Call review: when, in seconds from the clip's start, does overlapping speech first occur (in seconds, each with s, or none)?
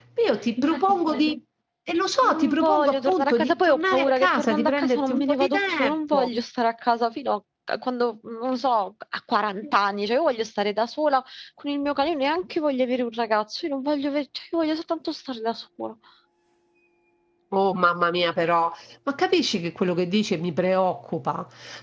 2.2 s